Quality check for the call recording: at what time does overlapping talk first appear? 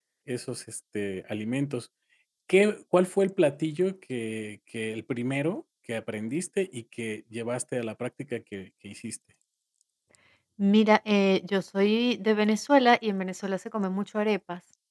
none

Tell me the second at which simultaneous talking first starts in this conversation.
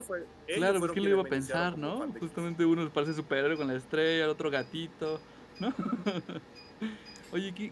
0.5 s

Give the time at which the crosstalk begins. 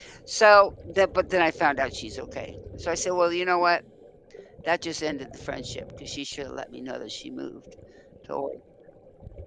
none

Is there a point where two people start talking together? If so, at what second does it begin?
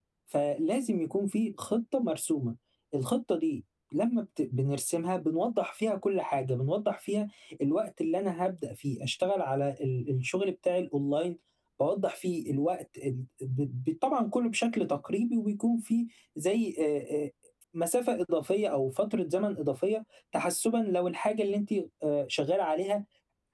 none

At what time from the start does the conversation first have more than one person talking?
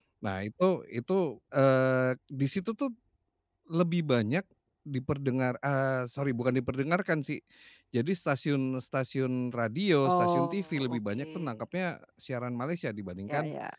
10.1 s

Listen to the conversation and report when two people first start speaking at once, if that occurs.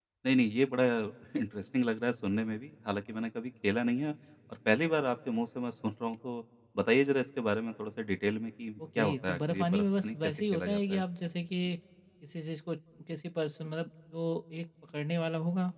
9.0 s

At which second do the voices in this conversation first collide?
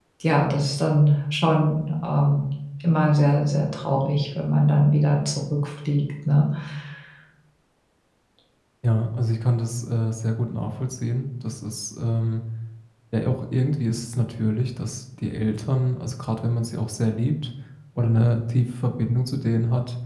none

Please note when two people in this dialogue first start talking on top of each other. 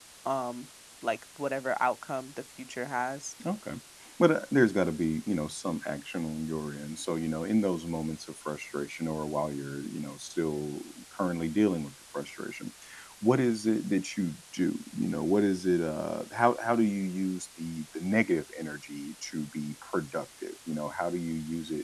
none

